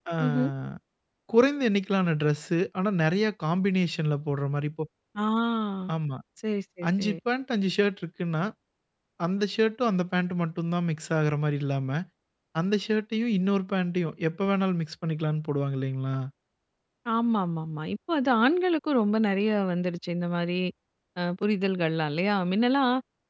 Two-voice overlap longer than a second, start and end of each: none

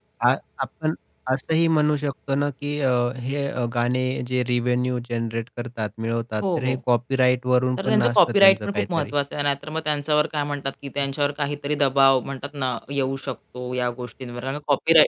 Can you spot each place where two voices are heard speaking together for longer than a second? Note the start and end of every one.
7.8-9.1

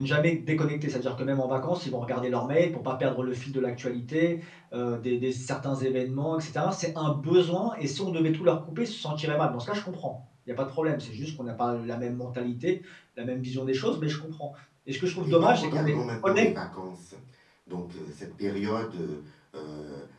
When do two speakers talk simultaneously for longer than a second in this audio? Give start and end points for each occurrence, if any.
15.2-16.5

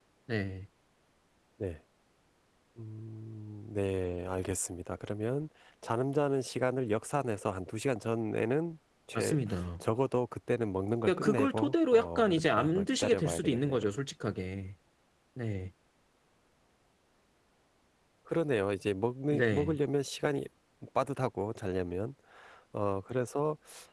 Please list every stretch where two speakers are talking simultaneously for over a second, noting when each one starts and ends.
11.1-13.8

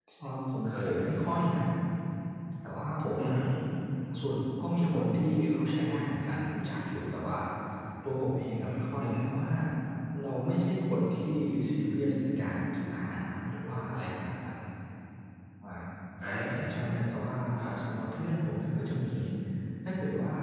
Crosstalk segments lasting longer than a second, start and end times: none

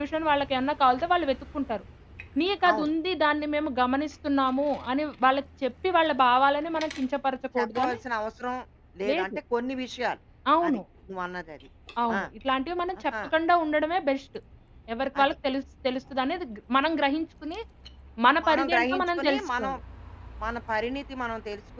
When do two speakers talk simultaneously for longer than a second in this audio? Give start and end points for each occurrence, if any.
18.4-19.7

